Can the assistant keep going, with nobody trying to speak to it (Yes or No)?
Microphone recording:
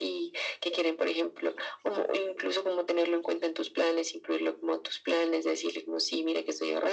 Yes